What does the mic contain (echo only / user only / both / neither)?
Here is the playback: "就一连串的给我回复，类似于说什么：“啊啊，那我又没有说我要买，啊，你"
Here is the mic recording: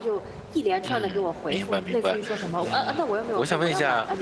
both